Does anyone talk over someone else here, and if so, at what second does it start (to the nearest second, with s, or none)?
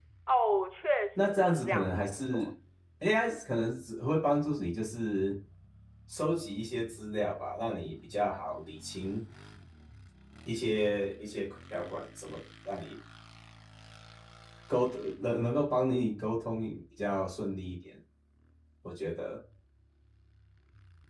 1 s